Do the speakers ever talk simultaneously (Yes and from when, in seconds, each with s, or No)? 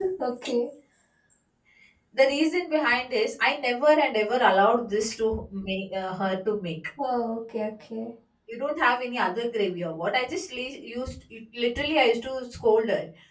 No